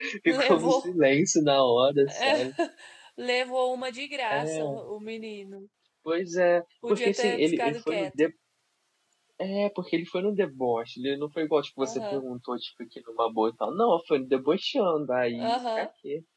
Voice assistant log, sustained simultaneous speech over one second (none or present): present